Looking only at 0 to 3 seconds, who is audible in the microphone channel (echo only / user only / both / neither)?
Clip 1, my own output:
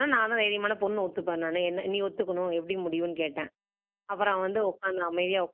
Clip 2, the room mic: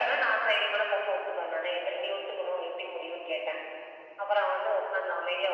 echo only